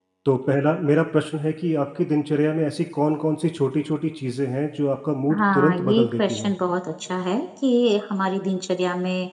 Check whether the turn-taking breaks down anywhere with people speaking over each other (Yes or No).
Yes